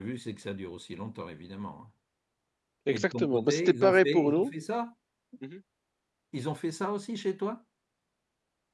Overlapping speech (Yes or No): Yes